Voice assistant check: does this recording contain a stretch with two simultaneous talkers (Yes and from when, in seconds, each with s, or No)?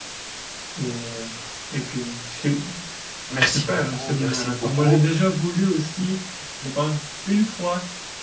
Yes, from 3.4 s